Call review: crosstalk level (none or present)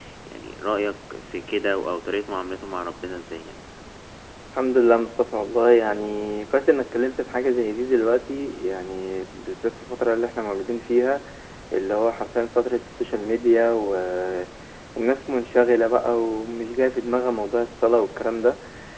none